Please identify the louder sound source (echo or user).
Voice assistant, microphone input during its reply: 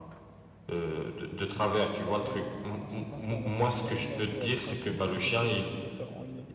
echo